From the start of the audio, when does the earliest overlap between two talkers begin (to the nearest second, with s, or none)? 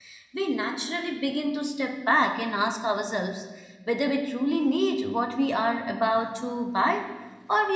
none